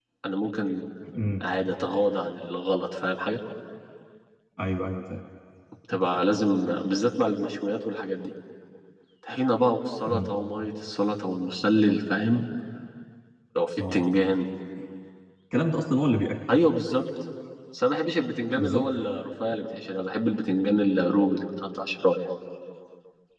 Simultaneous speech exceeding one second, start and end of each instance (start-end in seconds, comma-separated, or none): none